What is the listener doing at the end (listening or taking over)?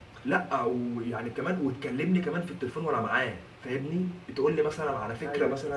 listening